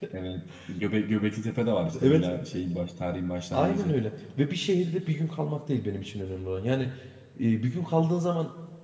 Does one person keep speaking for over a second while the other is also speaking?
No

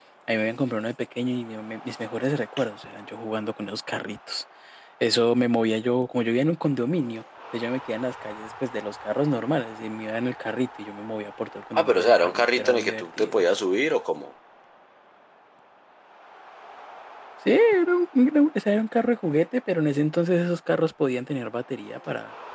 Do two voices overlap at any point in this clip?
Yes, from 11.7 s

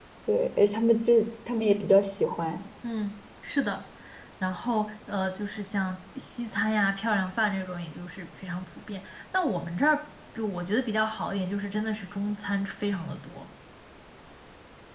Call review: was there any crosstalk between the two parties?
No

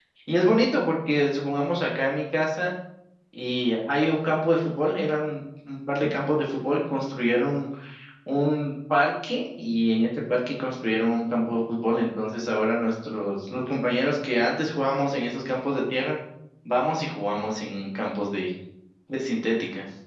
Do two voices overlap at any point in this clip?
No

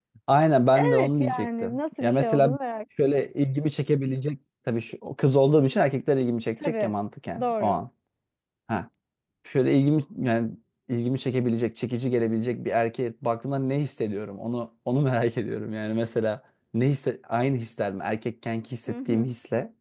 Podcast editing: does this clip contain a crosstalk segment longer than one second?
Yes, from 0.7 s

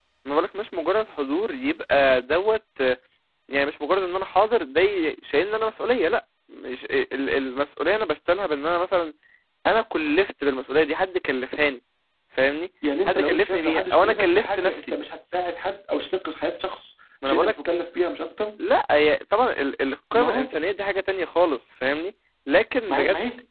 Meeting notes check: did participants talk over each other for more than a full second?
Yes, from 13.0 s

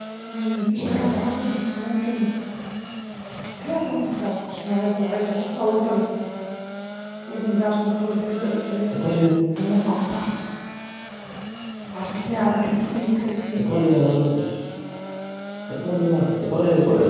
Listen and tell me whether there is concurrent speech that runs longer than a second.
No

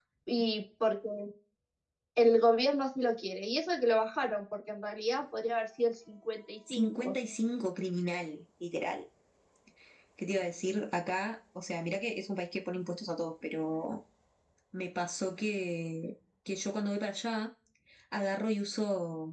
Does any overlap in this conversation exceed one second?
No

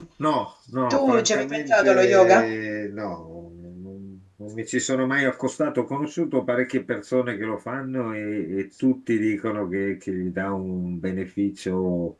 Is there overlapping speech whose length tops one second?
Yes, from 0.9 s

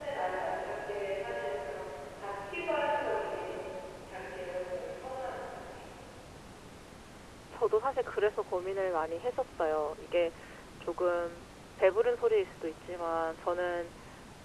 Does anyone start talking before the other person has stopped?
No

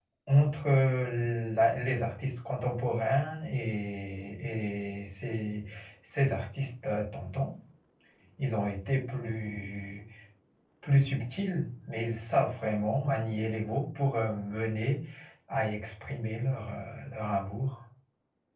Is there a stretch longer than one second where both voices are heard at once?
No

